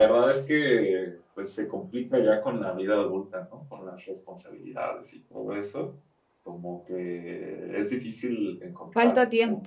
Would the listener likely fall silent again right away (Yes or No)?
Yes